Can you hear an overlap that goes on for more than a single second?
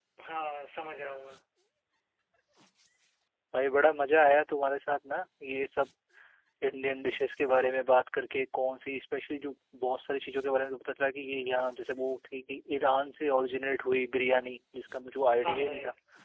No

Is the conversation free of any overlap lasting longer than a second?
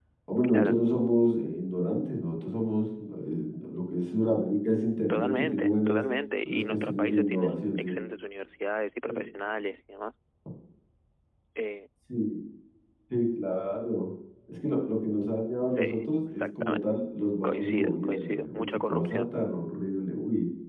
No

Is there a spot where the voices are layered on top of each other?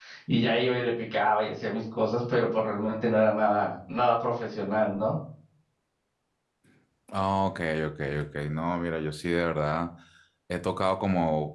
No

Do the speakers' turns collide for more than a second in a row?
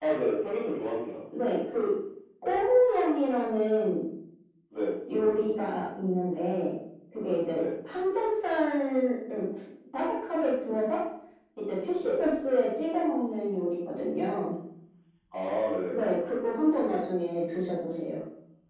No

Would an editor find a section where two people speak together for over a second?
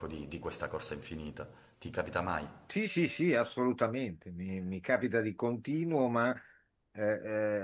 No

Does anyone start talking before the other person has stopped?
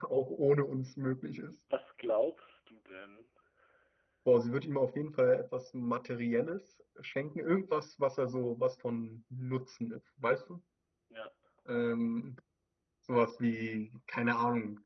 No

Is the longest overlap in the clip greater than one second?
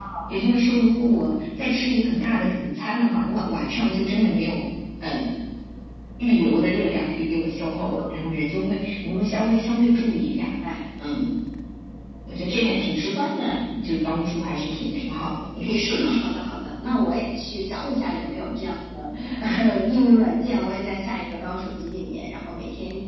No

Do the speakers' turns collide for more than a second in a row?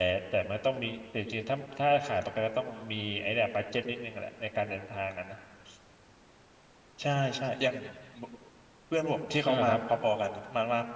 No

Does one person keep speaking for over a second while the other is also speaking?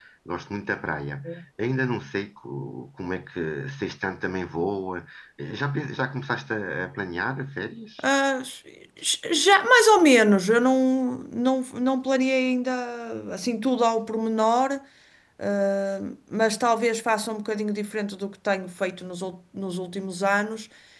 No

